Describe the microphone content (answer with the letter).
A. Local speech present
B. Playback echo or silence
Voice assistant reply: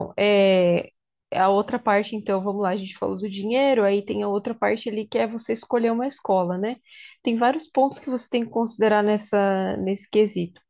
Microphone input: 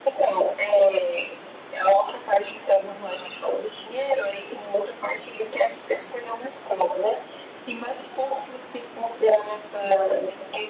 B